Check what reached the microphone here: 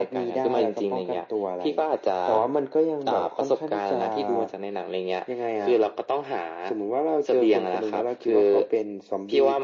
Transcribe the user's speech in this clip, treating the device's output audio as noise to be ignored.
none

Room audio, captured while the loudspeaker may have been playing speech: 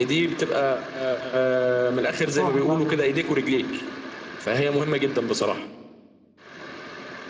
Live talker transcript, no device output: راحت عليه

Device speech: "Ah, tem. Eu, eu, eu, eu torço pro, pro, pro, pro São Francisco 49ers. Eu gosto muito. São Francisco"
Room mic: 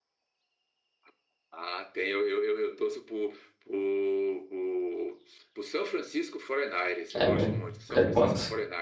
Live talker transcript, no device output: É mesmo. É quanto?

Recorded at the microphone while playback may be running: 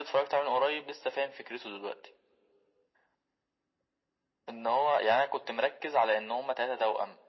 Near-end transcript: none

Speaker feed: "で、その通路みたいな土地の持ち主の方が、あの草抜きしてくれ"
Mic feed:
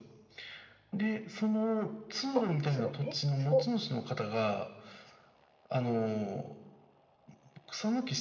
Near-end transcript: あ、すご、え、すご、

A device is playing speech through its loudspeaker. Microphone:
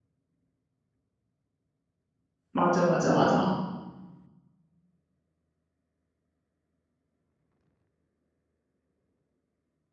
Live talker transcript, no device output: 맞아, 맞아, 맞아.

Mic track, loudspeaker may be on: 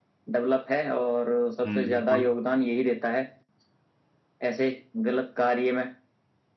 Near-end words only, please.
हम्म बिल्कुल

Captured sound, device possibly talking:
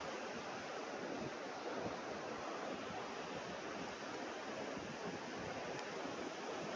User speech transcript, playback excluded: none

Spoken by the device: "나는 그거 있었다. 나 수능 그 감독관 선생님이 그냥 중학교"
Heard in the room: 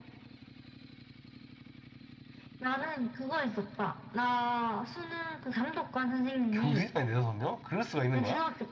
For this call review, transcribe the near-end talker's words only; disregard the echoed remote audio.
교실 안에 네다섯 명? 그럴 수가 있는 거야?

